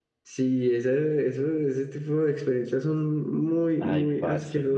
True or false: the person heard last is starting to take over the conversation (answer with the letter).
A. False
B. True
B